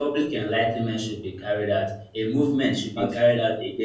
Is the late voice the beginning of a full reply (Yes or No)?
No